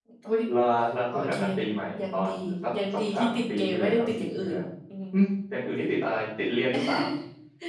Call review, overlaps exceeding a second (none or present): present